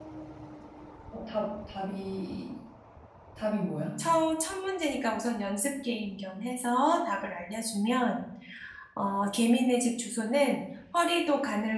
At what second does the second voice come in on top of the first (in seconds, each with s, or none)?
none